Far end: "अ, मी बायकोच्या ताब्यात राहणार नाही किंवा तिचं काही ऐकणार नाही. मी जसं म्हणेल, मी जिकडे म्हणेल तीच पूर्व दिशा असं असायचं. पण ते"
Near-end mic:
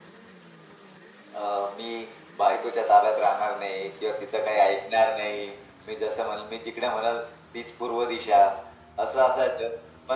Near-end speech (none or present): none